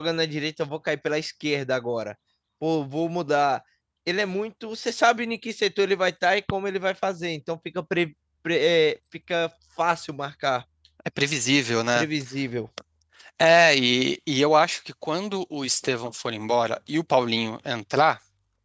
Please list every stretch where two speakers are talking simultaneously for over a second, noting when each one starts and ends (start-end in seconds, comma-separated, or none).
none